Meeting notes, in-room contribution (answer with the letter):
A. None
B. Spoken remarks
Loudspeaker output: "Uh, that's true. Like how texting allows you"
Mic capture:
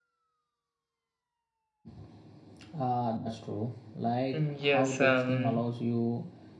B